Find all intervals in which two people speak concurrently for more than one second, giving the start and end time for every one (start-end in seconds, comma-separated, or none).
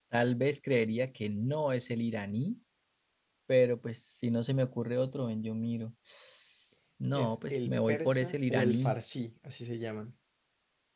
7.1-9.0